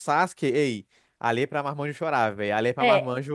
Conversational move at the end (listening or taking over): taking over